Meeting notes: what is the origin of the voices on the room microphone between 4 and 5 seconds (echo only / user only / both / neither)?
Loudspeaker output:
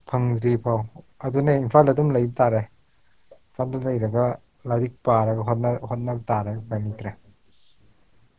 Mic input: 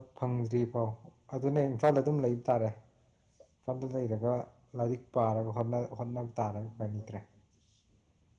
echo only